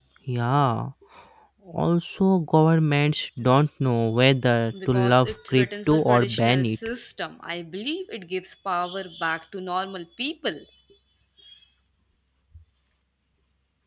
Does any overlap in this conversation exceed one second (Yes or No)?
Yes